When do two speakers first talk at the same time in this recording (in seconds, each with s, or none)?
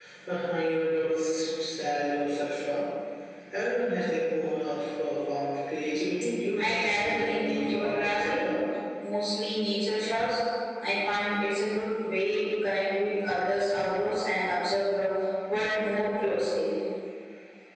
6.6 s